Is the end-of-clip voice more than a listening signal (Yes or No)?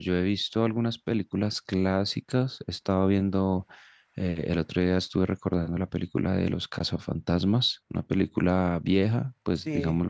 Yes